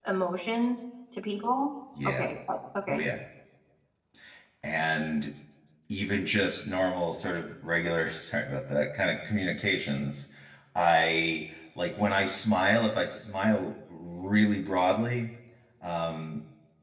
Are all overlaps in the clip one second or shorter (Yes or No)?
Yes